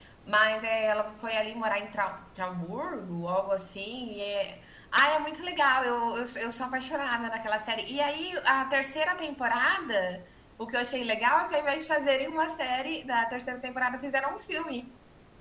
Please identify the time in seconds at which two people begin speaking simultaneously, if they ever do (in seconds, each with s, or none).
none